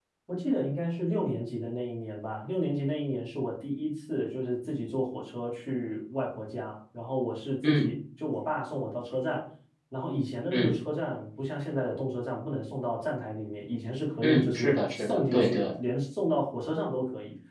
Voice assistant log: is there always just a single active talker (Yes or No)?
No